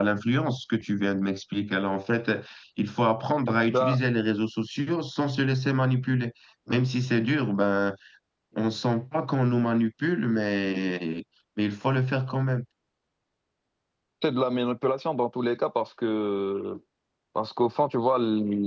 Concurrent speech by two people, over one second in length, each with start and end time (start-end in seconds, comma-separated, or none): none